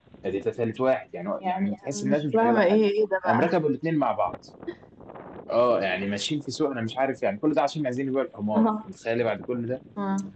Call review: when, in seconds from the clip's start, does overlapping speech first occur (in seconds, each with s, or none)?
1.4 s